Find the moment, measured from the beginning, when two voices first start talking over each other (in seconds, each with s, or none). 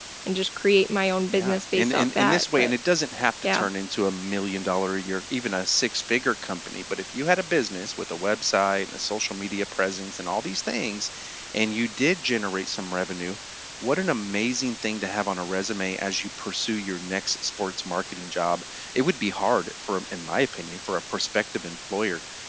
1.3 s